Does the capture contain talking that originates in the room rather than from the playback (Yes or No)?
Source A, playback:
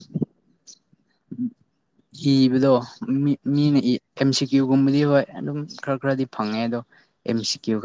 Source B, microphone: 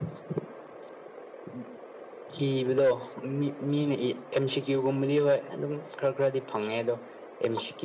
No